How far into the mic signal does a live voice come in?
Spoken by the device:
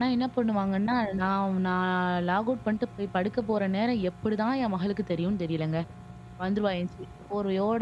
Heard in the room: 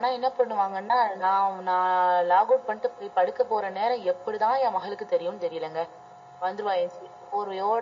none

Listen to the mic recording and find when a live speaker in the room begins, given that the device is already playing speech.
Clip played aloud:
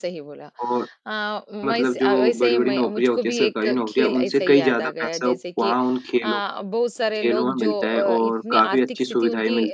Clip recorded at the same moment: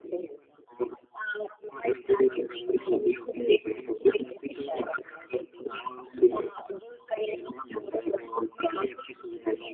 none

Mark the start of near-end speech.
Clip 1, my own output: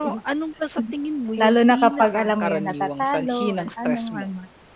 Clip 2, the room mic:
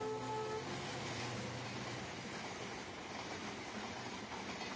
none

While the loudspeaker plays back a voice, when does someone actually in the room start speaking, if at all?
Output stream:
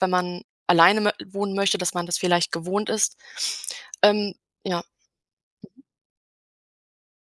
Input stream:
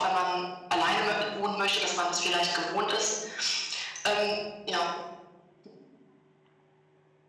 none

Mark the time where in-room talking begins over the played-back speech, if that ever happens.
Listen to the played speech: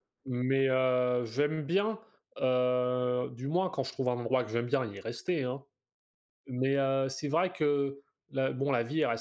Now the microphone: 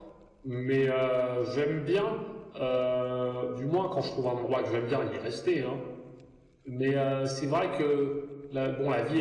none

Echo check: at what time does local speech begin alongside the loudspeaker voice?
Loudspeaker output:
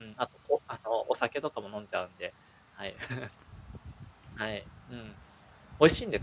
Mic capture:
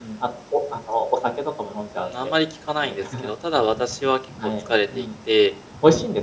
1.9 s

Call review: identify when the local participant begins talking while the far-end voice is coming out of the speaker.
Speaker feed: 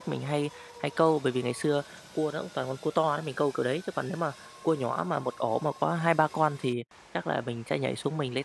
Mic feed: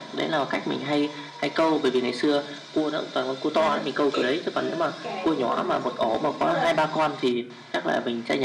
3.5 s

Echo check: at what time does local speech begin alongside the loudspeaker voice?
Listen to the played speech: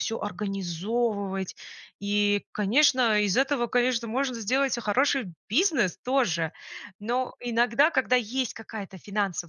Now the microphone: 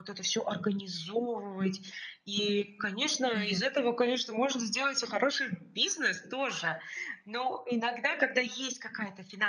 3.3 s

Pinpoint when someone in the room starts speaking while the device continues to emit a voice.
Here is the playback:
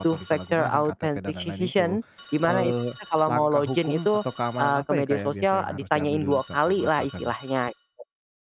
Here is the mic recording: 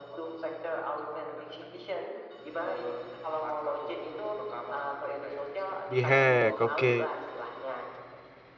5.9 s

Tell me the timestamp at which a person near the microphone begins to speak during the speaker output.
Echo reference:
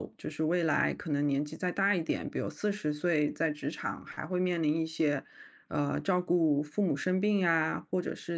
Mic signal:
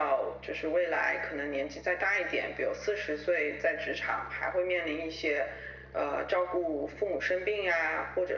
none

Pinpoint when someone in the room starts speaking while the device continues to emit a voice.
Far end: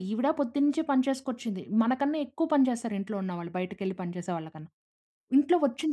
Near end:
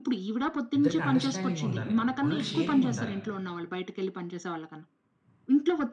0.8 s

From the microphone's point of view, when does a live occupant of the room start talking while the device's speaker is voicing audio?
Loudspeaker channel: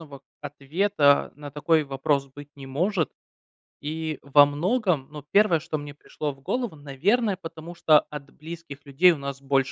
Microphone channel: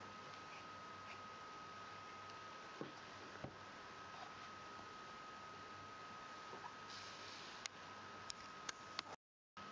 none

